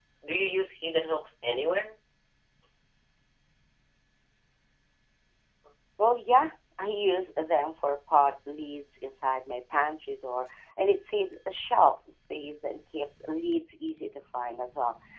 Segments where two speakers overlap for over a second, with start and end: none

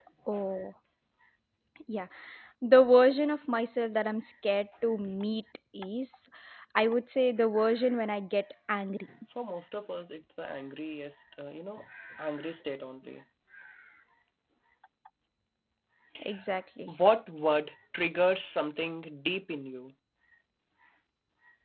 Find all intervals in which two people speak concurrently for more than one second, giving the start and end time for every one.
none

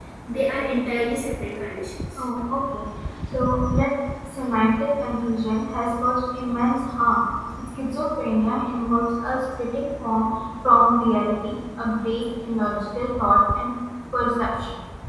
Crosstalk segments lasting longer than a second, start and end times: none

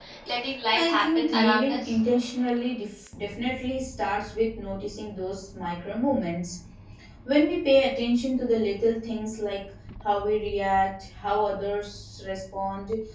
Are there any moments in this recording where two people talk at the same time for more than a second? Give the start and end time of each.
0.7-2.0

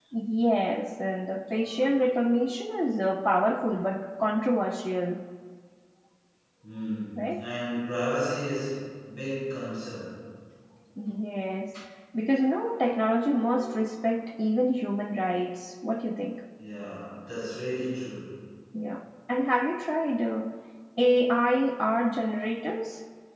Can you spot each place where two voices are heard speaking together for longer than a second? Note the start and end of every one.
none

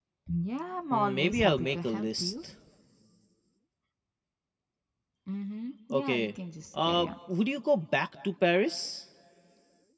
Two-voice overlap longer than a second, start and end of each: 0.9-2.3

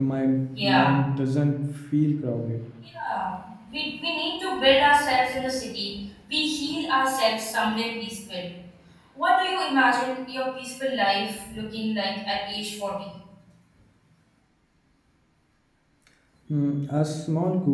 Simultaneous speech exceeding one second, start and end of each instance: none

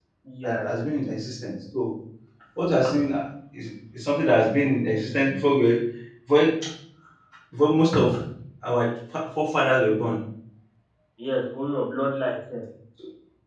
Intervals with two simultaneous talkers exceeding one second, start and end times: none

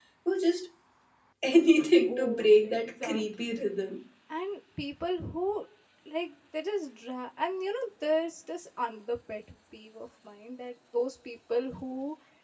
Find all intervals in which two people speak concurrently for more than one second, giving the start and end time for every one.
2.1-3.6

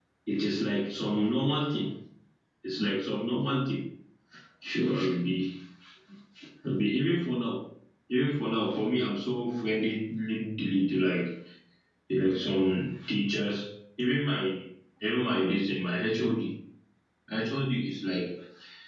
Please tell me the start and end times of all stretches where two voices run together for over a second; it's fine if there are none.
none

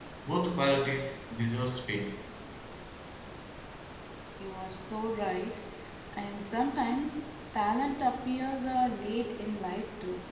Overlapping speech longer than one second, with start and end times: none

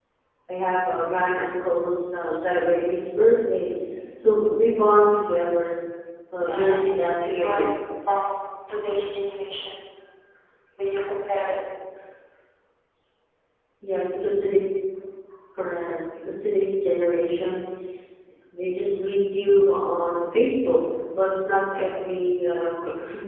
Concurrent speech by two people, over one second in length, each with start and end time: 6.5-7.7

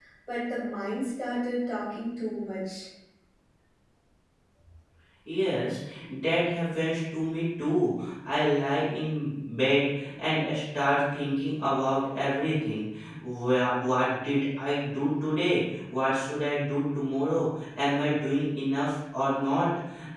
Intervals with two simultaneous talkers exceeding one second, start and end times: none

